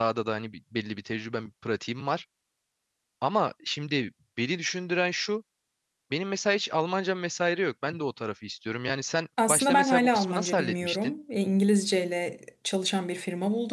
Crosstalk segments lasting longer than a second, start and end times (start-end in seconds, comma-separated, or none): 9.5-11.1